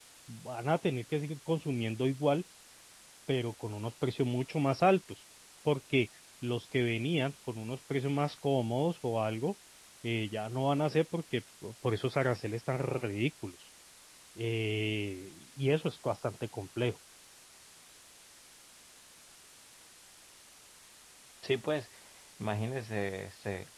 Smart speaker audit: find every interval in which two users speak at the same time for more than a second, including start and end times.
none

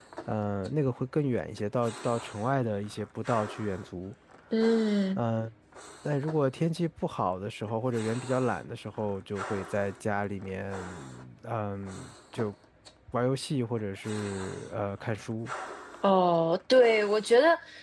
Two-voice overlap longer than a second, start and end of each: none

